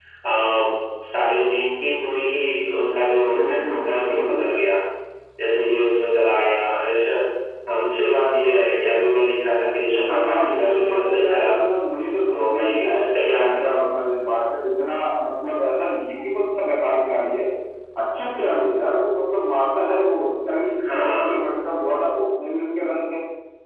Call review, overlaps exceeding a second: present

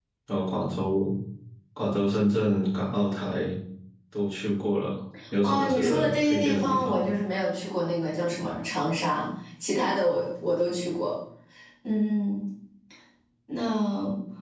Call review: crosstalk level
present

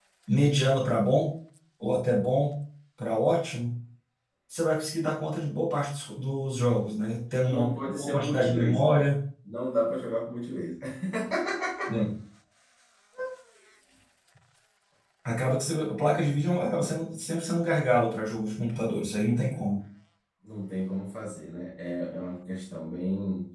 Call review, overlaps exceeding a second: present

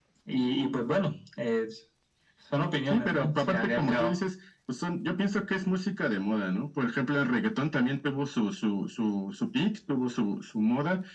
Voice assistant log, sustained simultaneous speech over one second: present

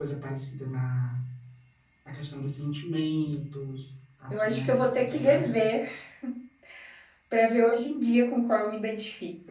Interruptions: present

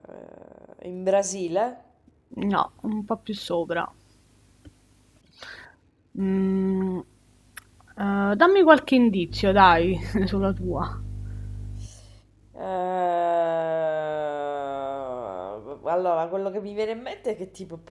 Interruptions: none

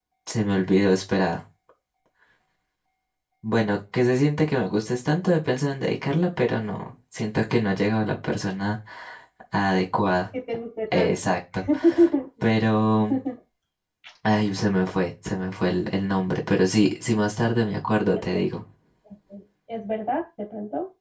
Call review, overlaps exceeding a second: none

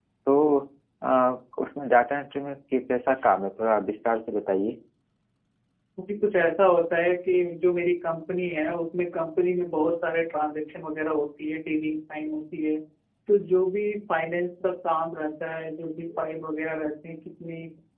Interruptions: none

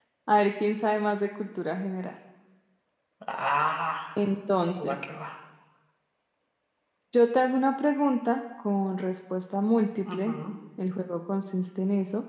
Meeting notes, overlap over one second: none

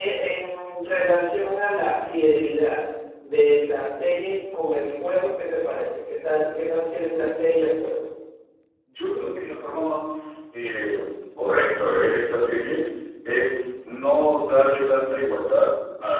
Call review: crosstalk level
none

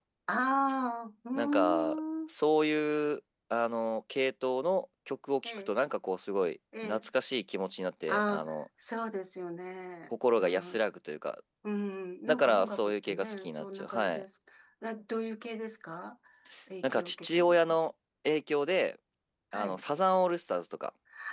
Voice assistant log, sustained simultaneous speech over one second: present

